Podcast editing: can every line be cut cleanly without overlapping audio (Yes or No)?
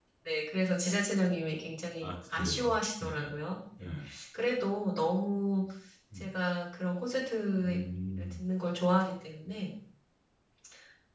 No